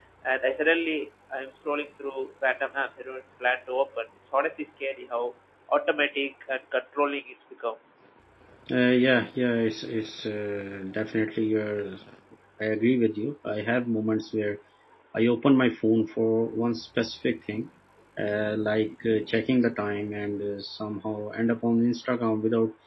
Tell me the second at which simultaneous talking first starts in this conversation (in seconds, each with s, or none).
none